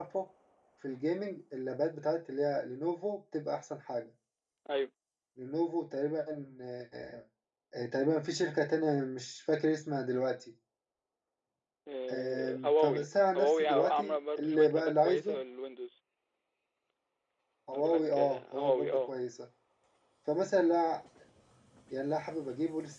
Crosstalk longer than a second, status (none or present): present